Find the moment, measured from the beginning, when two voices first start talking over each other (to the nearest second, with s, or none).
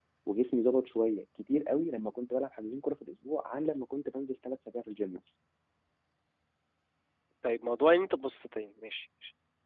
none